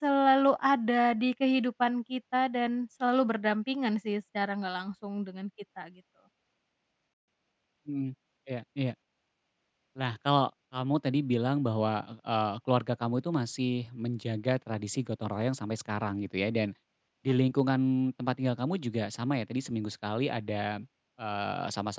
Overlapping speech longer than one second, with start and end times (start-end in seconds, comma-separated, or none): none